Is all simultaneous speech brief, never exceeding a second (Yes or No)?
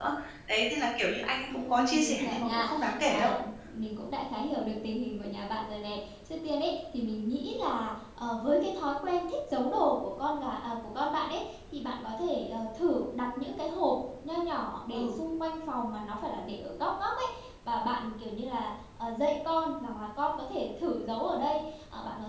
No